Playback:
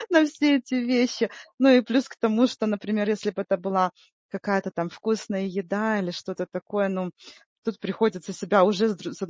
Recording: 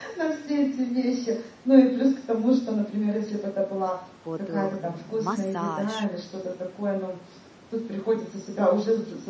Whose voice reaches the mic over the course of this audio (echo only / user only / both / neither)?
both